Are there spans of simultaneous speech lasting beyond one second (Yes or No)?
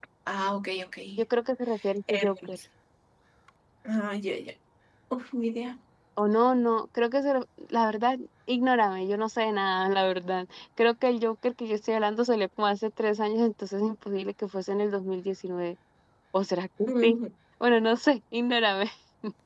No